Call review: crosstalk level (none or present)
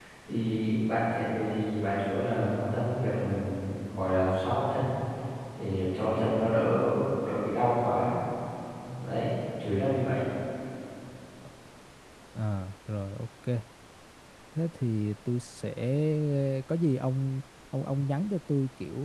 none